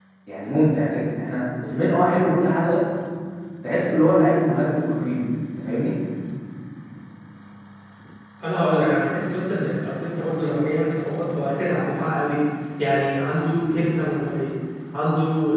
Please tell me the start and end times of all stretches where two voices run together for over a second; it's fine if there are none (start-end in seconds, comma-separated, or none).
none